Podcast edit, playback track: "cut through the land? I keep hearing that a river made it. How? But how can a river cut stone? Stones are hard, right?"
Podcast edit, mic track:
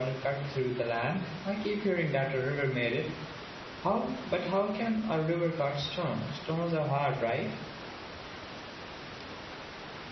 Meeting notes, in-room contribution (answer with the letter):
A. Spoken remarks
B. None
B